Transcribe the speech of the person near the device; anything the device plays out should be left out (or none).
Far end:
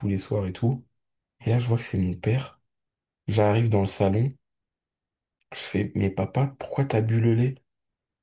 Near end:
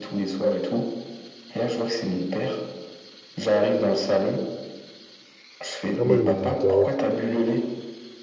Ah, moi, je mettais une carotte.